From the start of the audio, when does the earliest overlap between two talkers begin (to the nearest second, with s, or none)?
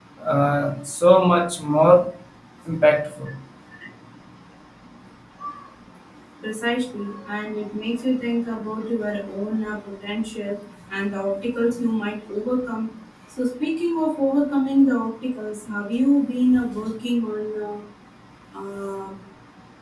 none